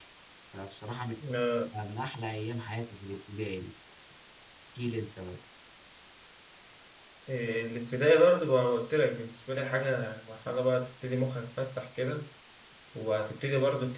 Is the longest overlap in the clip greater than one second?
No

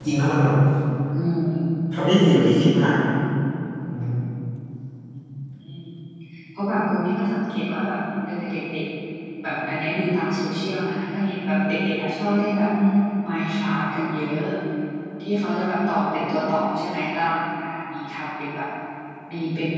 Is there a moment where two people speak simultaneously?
No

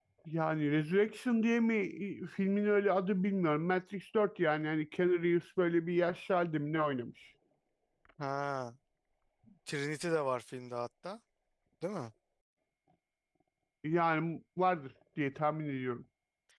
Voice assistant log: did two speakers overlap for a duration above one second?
No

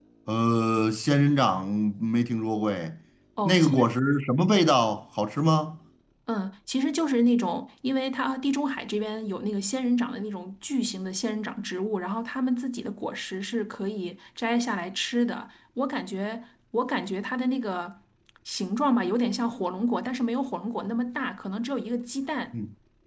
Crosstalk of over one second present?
No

